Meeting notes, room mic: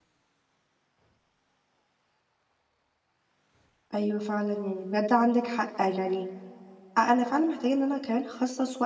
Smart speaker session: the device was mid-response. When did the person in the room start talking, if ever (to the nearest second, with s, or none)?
4 s